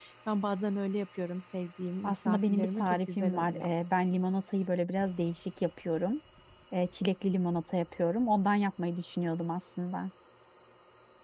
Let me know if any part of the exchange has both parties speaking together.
Yes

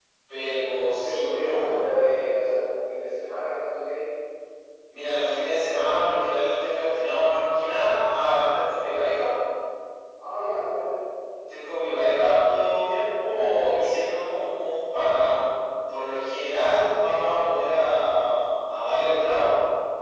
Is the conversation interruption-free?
No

